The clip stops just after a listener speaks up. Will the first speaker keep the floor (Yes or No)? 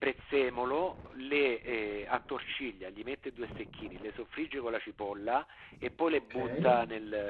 Yes